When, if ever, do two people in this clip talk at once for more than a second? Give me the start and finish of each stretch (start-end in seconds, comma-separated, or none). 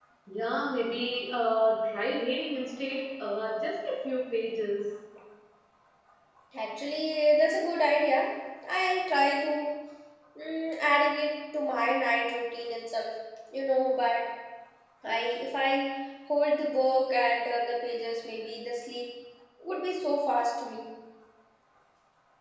none